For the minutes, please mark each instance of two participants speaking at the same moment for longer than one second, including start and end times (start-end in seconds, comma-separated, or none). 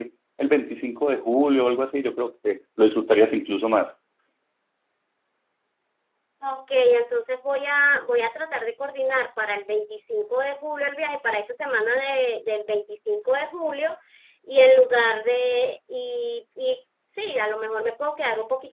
none